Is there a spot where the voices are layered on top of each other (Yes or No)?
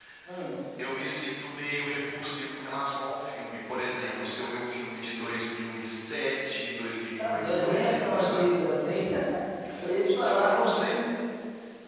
Yes